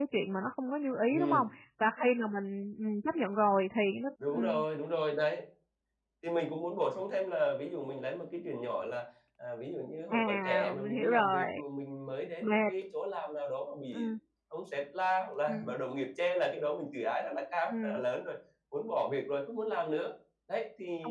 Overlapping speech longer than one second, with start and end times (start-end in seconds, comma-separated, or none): 10.1-11.6